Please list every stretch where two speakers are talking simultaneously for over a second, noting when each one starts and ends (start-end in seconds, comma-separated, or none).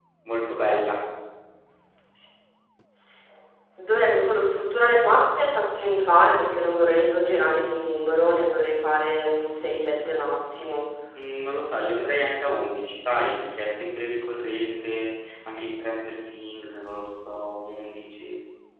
none